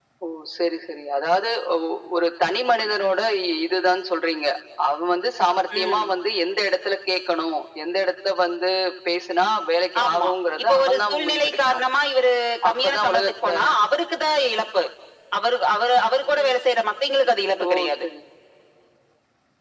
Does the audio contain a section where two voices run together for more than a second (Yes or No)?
Yes